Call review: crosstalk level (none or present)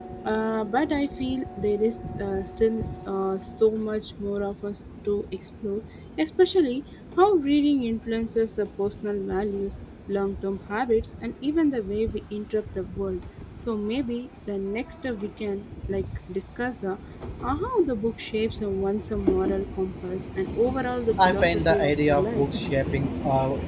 present